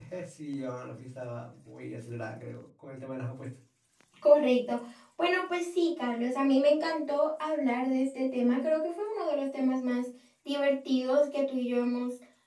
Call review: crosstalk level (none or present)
none